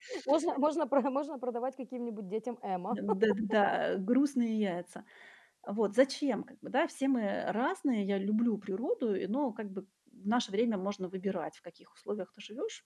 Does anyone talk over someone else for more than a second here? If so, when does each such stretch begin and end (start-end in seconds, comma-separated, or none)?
none